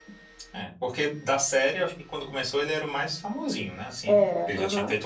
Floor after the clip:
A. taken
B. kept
B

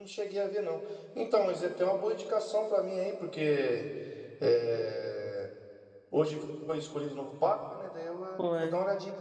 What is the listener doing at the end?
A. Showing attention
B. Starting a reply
A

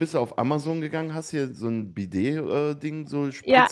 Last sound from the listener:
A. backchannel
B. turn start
A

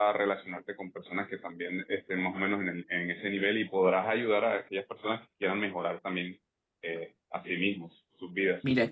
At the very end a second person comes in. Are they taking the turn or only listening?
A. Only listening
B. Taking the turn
B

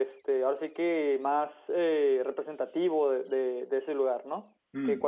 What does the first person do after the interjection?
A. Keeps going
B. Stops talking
B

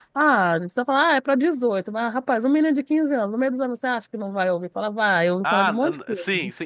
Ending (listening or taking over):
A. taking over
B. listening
A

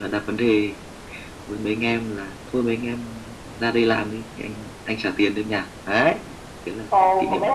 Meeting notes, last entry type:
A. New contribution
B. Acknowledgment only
A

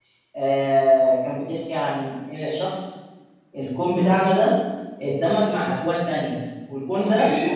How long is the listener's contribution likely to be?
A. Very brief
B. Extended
A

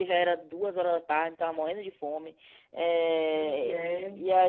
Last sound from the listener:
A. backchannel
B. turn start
A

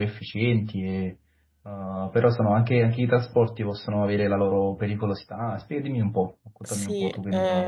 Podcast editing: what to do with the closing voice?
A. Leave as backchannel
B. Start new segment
B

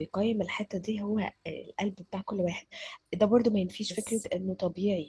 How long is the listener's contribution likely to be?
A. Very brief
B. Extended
A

